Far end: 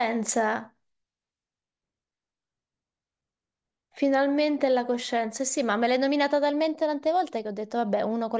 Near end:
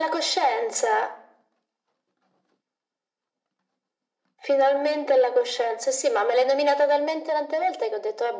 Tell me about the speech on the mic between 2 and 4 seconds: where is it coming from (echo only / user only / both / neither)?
neither